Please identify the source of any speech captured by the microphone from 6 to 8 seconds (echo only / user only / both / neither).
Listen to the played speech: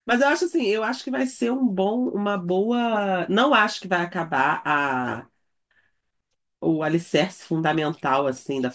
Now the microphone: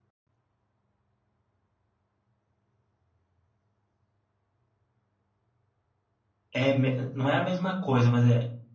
user only